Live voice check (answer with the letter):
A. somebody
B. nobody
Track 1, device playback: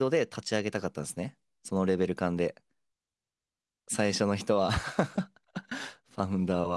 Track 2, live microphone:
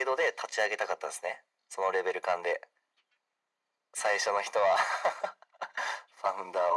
B